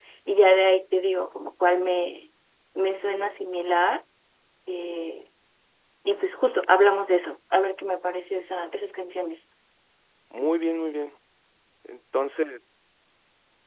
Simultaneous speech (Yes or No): No